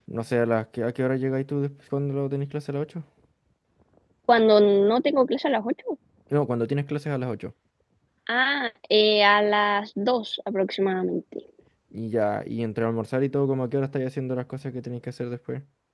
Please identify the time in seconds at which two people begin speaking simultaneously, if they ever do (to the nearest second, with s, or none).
none